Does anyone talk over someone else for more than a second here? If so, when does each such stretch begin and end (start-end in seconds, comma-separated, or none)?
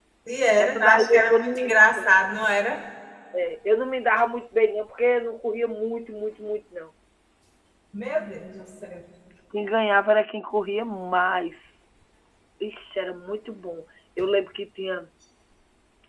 0.6-2.0